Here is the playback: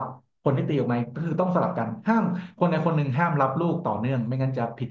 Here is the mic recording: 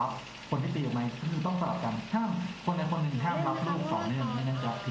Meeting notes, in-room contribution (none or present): present